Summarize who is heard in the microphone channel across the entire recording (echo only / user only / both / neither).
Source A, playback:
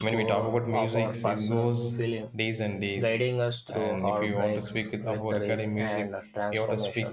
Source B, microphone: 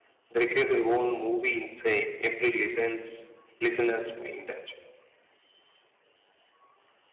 user only